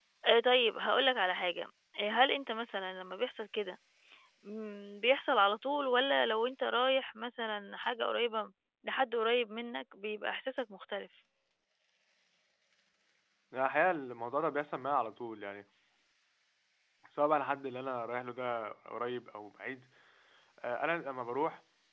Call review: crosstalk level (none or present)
none